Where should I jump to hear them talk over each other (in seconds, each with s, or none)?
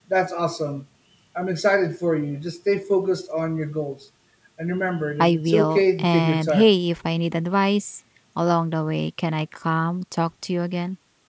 5.2 s